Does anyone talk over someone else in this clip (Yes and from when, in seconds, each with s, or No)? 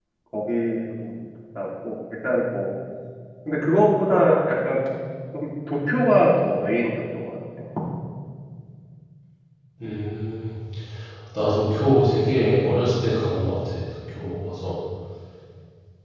No